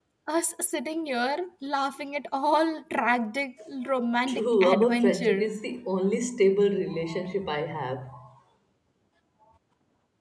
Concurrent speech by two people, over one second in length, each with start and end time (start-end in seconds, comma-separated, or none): 4.3-5.5